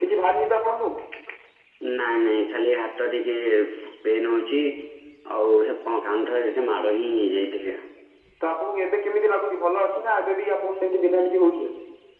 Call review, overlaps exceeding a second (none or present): none